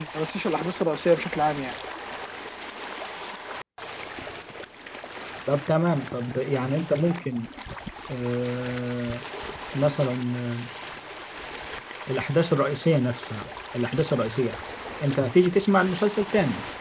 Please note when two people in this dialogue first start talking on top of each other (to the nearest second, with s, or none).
none